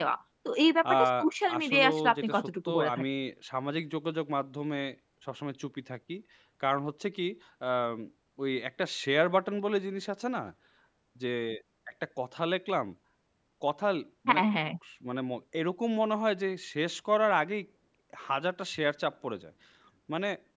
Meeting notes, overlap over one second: present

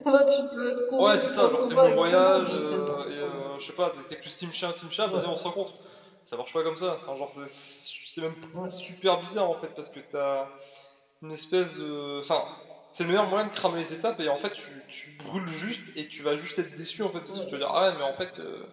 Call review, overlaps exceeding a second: present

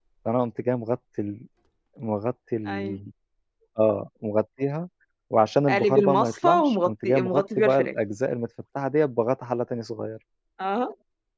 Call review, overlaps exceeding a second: present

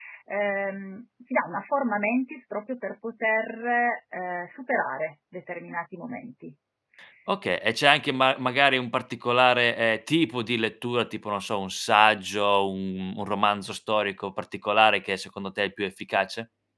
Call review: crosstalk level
none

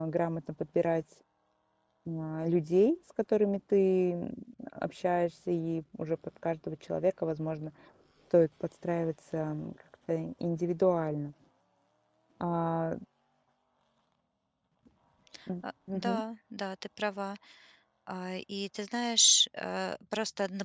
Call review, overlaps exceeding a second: none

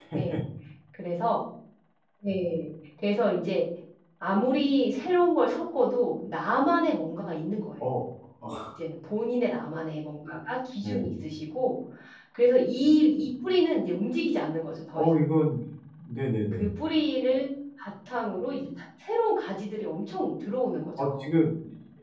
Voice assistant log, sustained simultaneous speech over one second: none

